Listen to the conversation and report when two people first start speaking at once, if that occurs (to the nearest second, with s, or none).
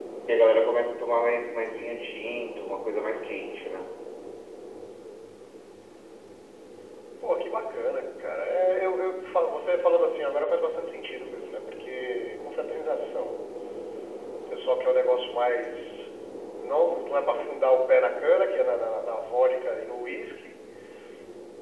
none